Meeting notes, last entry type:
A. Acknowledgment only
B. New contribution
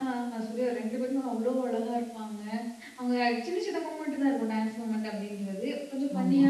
A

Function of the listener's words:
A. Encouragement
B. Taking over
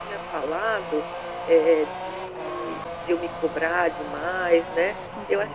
A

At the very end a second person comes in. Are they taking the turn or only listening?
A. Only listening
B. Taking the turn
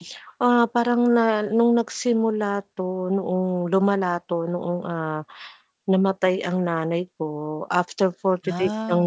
A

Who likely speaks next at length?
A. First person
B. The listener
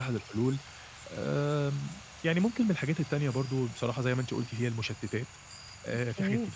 A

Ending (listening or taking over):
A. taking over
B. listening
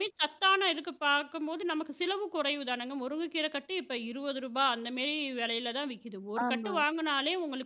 B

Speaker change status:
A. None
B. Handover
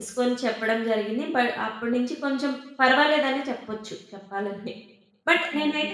A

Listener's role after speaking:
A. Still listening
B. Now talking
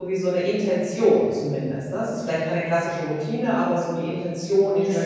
B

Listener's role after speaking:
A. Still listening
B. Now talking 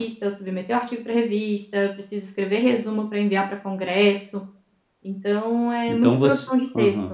B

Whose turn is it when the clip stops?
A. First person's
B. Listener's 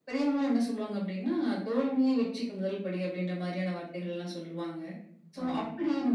A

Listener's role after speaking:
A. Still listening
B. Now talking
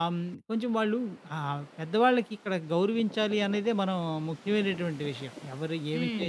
A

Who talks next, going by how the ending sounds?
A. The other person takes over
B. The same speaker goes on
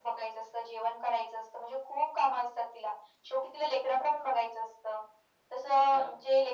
B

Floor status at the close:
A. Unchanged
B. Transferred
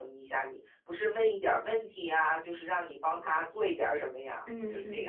B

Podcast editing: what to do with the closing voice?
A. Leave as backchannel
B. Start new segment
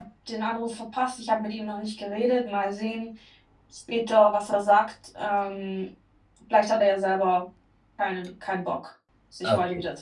B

